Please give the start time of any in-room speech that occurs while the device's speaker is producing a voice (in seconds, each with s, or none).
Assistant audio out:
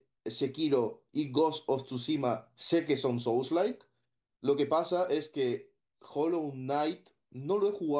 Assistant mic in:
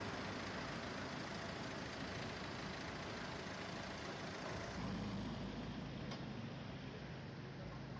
none